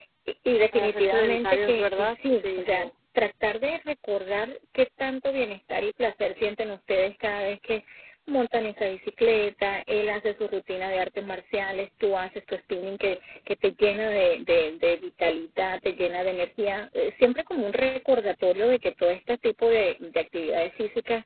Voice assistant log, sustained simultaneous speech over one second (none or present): present